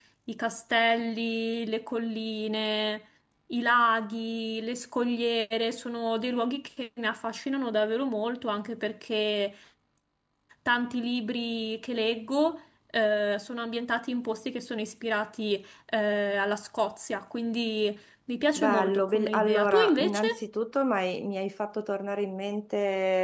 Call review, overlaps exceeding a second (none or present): present